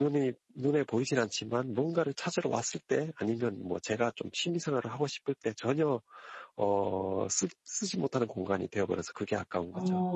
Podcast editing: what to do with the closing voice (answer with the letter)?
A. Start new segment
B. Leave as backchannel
A